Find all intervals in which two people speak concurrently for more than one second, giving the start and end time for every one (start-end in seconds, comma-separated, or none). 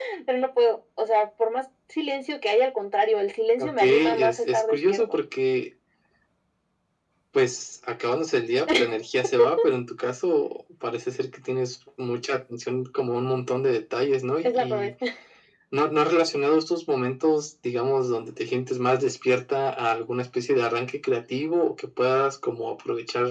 3.6-5.0